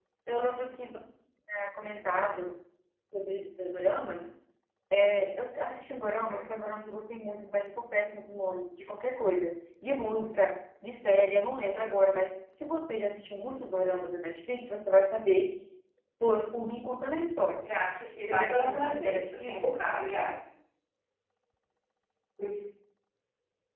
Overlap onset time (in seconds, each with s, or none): 18.3 s